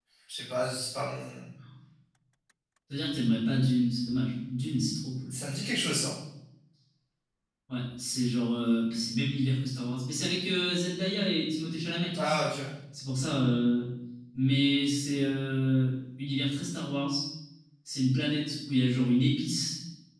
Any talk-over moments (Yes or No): No